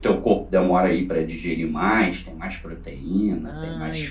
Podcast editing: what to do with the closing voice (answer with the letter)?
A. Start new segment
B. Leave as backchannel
A